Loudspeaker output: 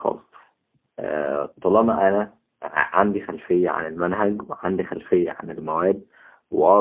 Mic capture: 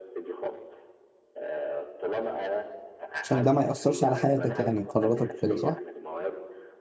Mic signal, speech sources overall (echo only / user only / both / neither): both